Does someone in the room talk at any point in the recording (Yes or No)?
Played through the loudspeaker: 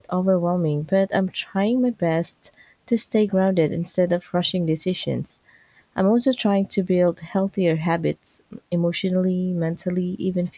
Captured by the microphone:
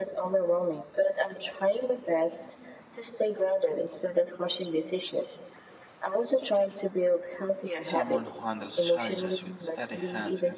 Yes